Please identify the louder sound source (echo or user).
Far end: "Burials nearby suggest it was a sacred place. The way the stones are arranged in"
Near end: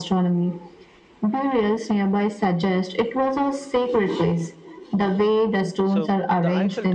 echo